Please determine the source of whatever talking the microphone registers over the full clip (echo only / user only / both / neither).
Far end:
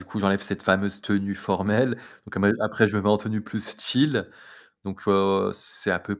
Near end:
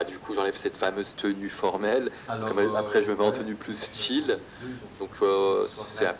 both